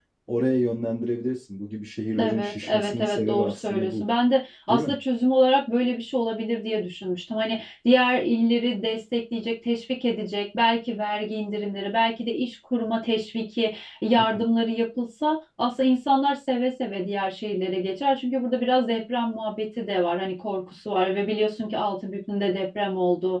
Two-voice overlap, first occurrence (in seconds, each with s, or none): 2.2 s